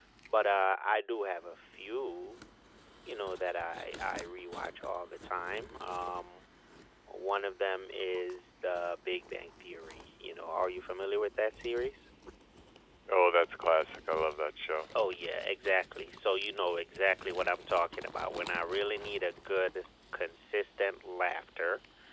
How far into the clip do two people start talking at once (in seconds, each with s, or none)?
none